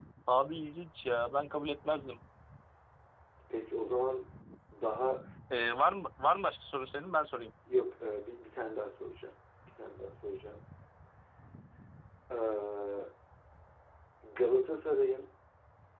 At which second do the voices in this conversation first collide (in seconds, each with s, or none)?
none